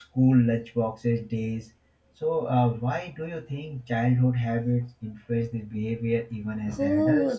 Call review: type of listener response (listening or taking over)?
taking over